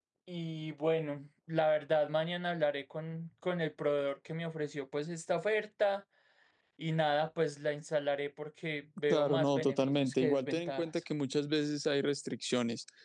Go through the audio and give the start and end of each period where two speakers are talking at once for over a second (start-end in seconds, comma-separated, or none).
9.1-10.8